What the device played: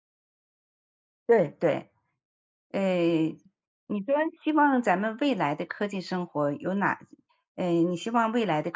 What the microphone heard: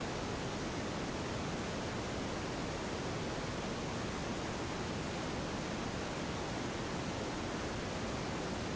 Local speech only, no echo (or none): none